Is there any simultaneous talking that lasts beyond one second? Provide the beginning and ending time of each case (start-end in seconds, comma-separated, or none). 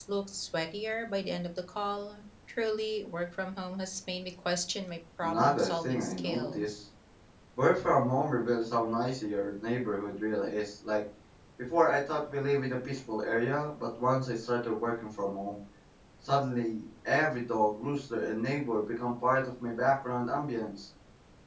5.2-6.8